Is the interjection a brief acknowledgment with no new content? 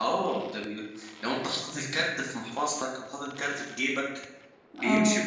Yes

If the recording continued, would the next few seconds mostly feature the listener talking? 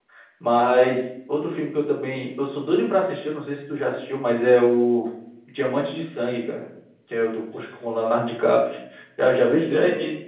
Yes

